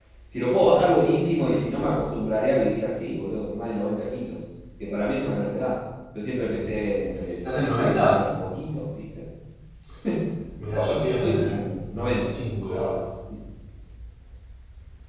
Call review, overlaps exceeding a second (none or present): present